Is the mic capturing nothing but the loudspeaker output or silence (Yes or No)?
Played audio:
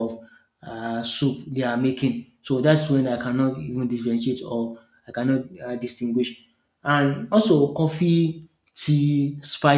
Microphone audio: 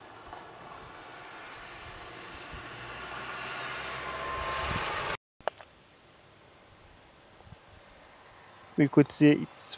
No